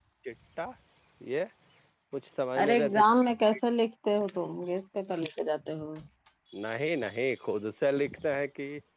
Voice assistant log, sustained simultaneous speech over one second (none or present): none